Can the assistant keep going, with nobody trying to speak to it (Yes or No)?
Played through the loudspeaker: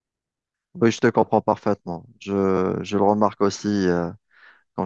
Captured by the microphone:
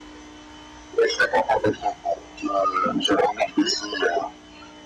Yes